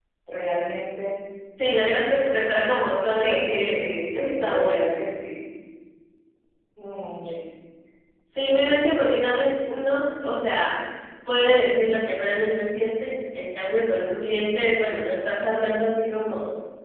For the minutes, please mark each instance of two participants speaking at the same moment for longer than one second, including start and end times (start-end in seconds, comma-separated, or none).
3.1-5.0